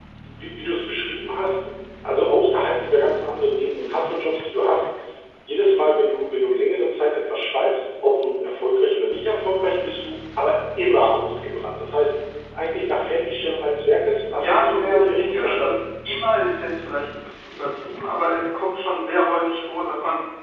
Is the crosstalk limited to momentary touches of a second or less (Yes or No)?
No